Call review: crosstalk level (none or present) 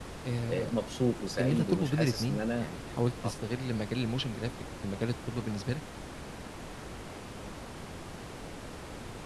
present